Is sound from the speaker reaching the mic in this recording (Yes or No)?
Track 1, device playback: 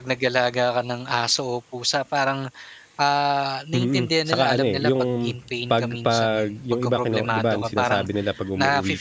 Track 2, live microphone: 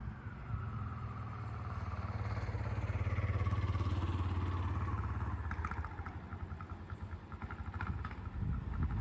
No